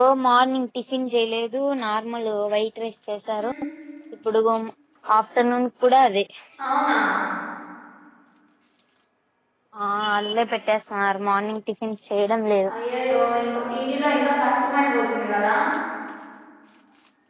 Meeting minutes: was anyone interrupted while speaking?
No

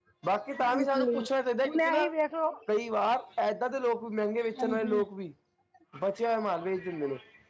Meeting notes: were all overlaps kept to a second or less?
Yes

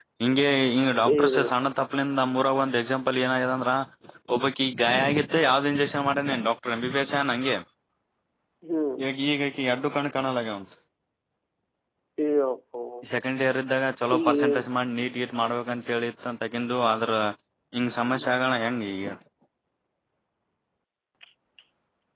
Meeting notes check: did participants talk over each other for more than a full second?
No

